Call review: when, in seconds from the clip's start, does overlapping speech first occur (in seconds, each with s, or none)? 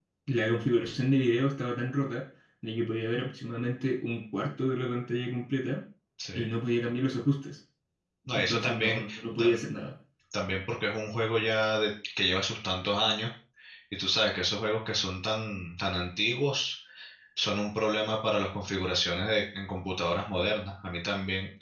8.3 s